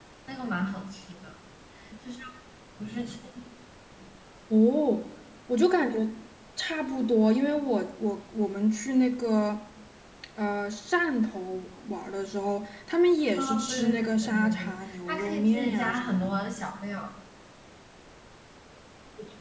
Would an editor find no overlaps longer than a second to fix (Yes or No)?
No